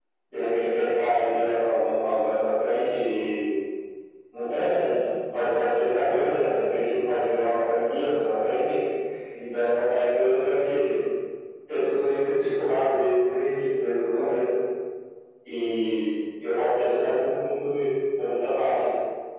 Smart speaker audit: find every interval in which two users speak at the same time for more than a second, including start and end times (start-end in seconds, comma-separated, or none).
none